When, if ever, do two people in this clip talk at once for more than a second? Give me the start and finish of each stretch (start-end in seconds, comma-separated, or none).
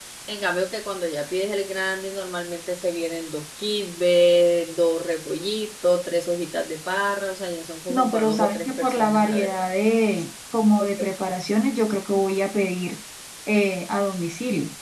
7.9-9.7